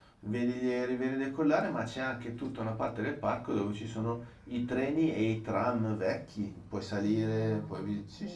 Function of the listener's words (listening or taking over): taking over